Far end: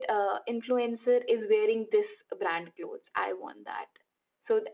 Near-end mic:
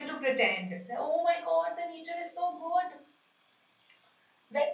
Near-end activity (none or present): present